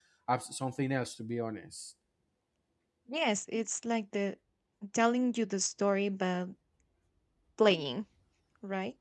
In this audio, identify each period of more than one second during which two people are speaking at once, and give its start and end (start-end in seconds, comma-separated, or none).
none